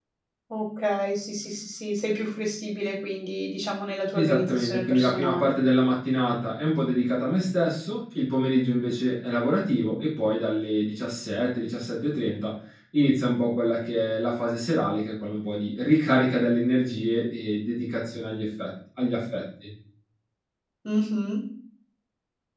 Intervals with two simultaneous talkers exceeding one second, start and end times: 4.1-5.5

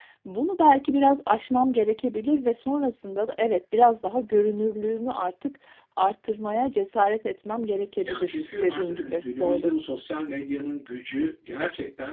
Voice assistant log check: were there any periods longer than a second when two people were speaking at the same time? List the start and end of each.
8.1-9.7

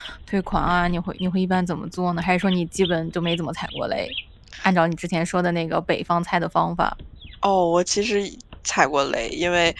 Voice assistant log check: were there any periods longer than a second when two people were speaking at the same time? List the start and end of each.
none

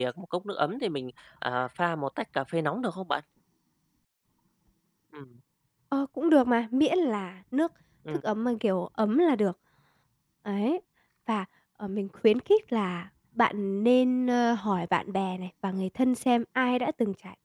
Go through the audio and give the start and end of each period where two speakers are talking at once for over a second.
none

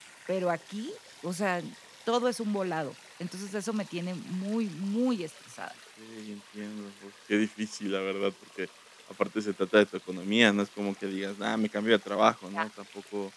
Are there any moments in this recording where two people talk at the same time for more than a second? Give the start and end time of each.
none

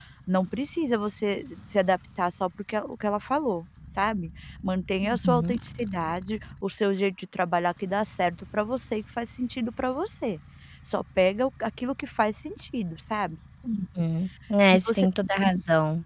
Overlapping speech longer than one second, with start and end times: none

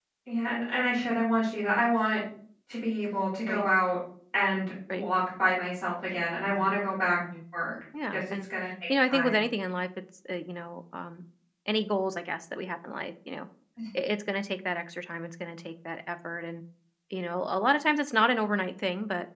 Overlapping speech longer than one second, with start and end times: none

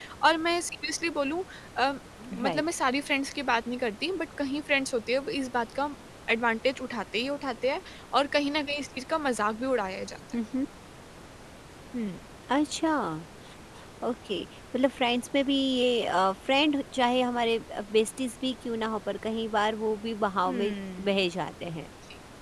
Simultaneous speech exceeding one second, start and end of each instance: none

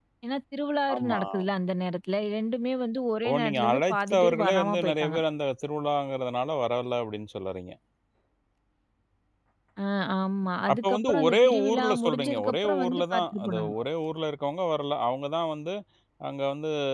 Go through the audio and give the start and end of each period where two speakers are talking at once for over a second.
3.3-5.2, 10.7-13.7

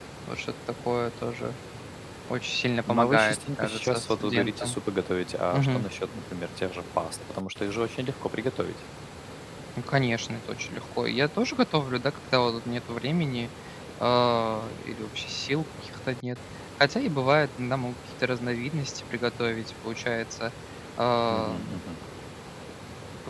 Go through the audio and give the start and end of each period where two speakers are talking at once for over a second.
2.9-4.8

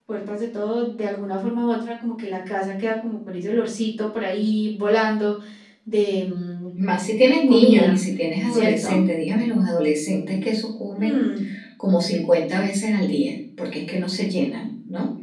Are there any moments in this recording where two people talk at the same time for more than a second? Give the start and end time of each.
none

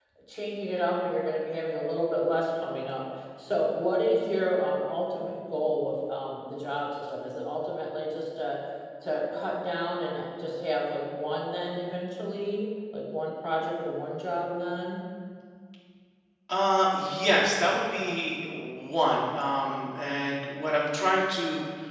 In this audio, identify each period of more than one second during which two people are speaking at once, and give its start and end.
none

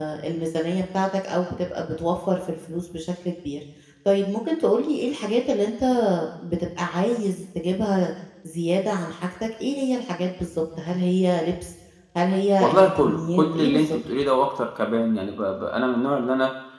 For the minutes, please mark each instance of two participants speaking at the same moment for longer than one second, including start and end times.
12.6-14.0

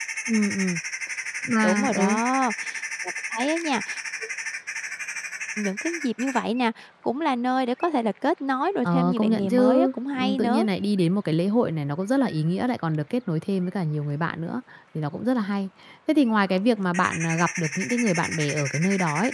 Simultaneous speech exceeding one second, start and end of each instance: 8.8-10.7

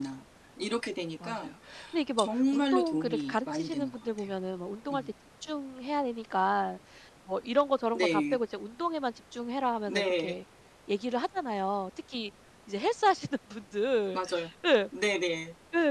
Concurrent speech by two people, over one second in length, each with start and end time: 2.2-4.3

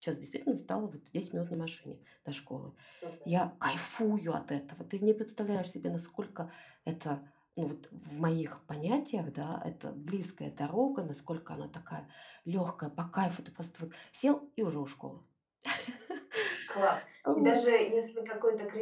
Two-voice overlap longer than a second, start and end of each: none

